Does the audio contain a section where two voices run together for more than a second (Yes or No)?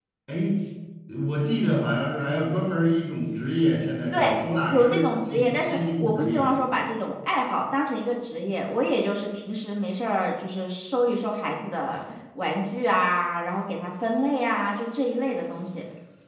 Yes